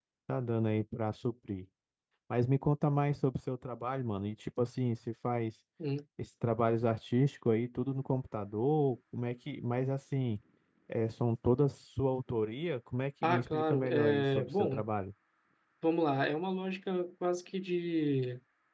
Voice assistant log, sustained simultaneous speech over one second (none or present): present